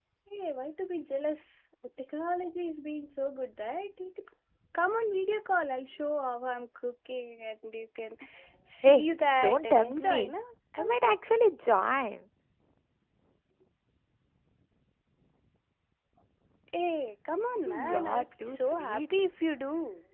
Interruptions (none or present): present